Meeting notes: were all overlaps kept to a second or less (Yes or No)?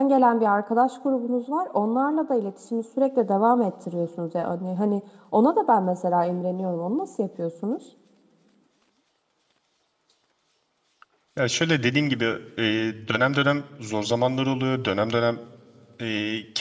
Yes